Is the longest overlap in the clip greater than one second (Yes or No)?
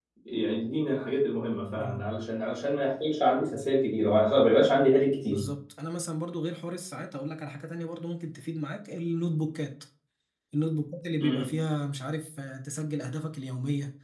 No